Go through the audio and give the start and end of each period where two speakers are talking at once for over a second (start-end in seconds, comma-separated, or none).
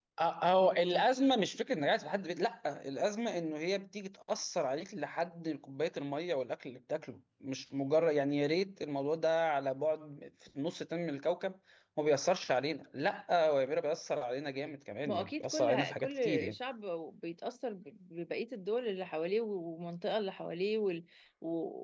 15.1-16.6